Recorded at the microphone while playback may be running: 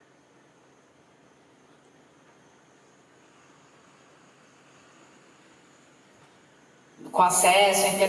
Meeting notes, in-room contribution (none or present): present